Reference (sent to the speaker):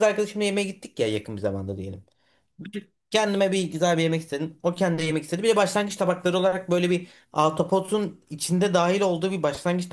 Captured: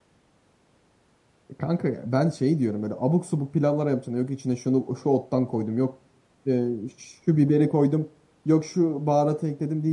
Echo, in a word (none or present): none